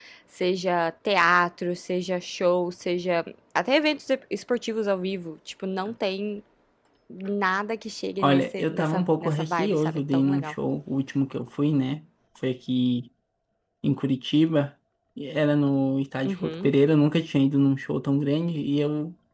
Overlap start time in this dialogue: 8.2 s

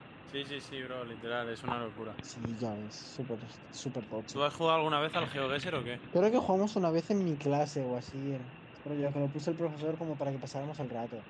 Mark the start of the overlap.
none

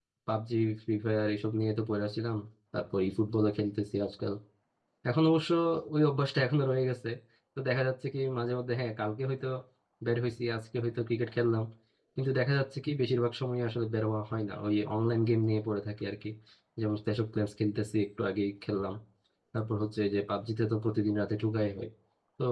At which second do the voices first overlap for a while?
none

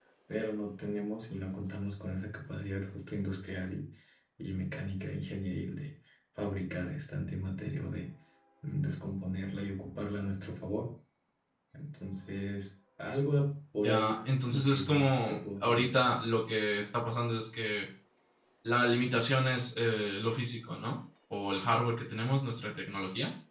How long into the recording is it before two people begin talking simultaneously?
13.8 s

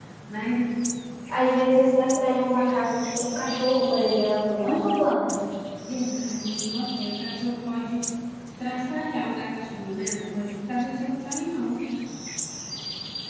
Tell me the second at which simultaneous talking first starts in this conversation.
none

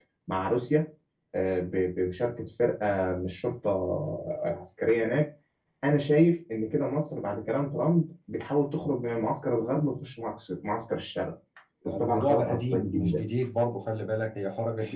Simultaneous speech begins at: 11.8 s

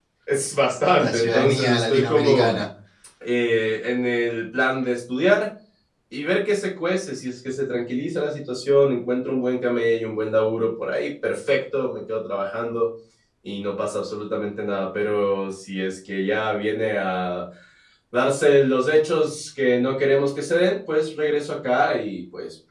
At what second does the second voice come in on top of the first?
1.0 s

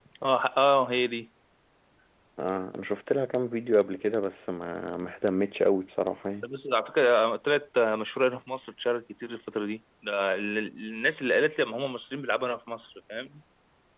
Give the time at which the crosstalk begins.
none

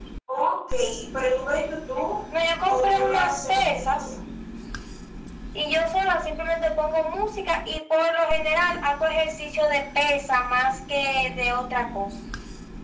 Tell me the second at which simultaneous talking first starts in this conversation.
2.7 s

